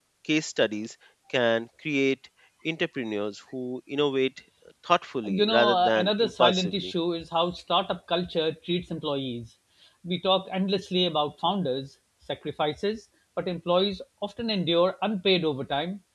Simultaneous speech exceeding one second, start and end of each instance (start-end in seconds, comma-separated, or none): 5.3-6.9